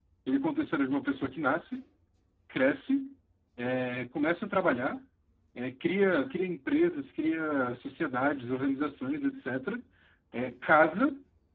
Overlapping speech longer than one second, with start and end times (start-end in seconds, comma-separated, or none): none